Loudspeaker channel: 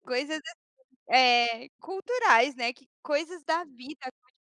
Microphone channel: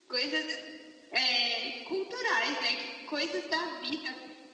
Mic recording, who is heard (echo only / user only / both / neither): echo only